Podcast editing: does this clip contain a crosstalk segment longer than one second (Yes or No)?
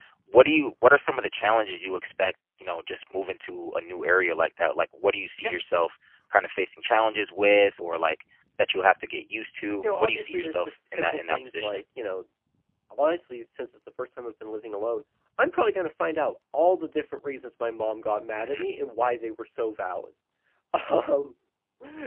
Yes